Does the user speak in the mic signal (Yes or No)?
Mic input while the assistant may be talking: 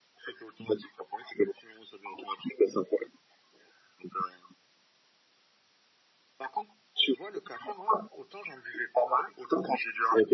No